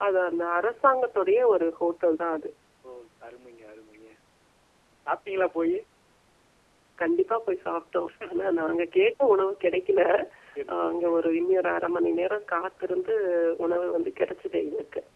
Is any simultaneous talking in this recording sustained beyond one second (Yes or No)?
No